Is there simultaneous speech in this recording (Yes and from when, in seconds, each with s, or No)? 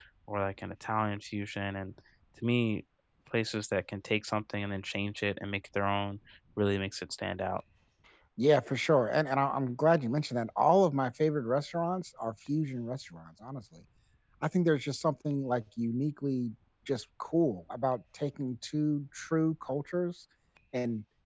No